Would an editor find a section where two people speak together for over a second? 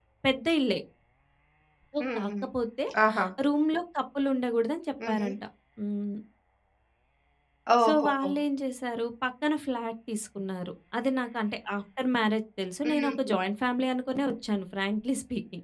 No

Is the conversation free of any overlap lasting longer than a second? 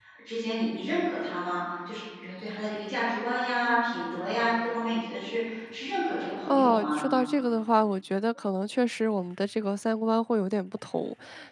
Yes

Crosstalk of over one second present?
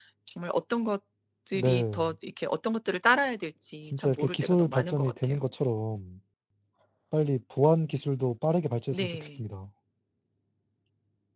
Yes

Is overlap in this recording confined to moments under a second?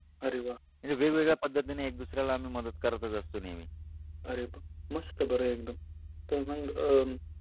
Yes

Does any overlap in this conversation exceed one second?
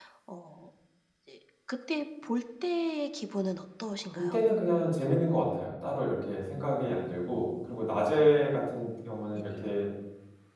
No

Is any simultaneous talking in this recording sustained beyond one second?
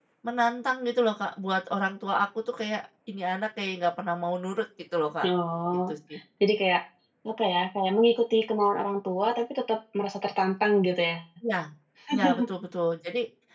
No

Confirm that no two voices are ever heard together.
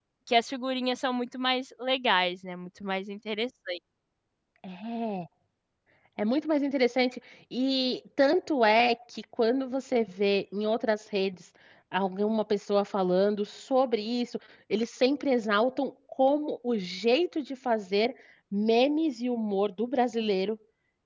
Yes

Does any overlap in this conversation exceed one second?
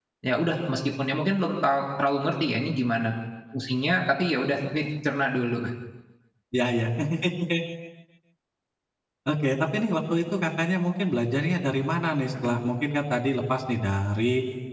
No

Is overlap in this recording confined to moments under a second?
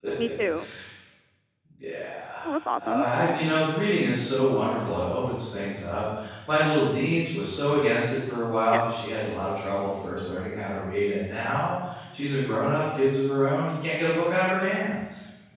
Yes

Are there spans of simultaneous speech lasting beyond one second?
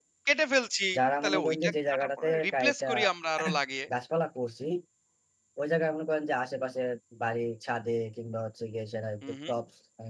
Yes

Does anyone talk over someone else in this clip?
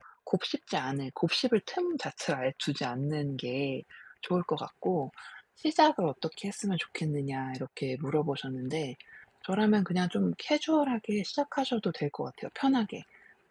No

